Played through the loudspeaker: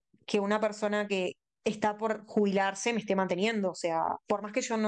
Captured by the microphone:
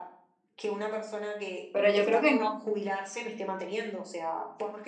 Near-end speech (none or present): present